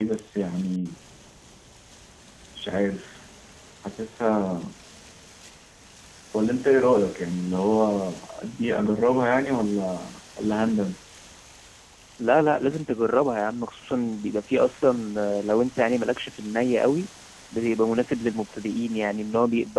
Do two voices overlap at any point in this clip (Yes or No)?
No